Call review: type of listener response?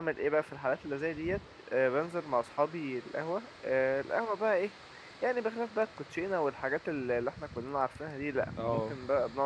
listening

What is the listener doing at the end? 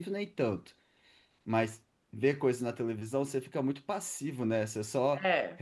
listening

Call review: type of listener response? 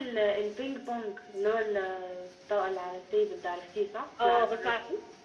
taking over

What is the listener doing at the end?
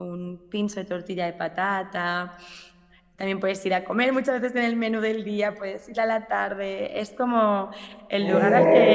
listening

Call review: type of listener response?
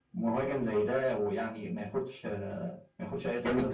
taking over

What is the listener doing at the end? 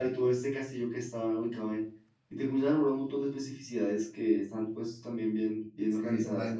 taking over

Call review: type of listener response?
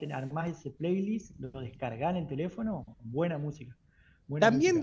taking over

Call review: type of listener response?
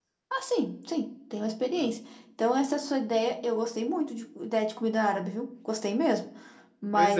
listening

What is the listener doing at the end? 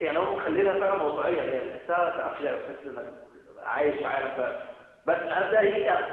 listening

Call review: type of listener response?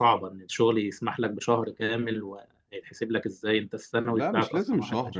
taking over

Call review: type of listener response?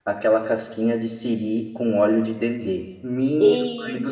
listening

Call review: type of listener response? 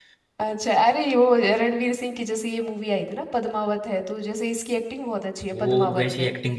taking over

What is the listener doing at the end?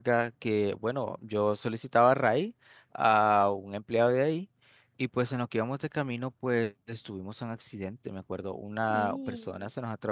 listening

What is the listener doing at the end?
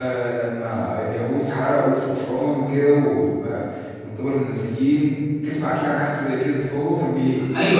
taking over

